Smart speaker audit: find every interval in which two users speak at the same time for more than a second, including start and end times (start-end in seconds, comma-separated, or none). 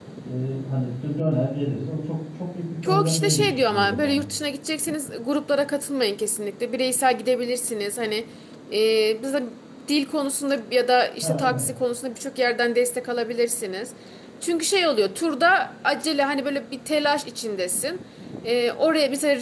2.8-4.2